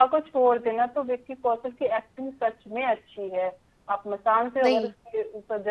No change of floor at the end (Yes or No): Yes